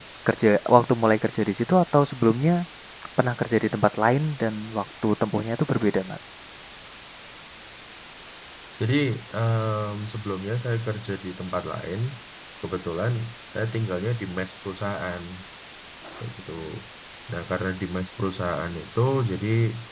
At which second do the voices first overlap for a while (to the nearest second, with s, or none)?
none